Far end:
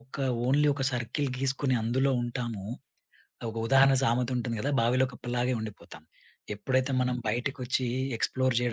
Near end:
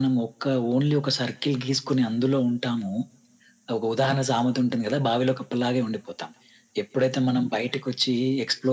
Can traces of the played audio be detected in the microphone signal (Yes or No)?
Yes